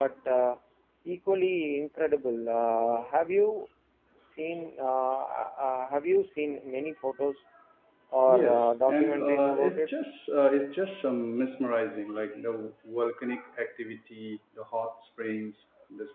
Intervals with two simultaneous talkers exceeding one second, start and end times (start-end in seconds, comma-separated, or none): 8.3-9.9